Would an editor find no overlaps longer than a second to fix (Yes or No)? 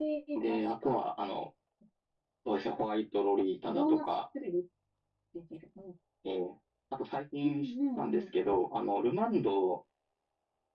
No